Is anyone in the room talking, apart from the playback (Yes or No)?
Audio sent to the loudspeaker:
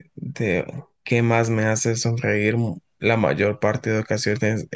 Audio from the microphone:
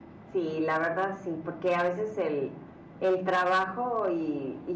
Yes